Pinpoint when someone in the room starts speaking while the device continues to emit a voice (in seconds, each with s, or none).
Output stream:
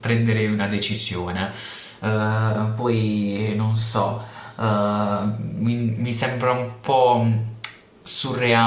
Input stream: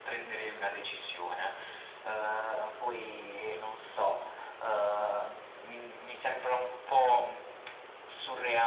none